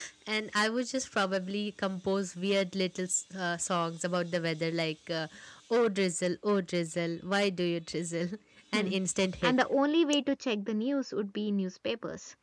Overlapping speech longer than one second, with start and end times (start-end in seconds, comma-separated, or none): none